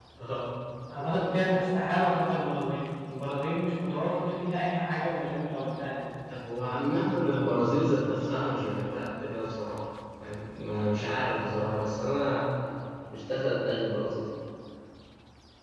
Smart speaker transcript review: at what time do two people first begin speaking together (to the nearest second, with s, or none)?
none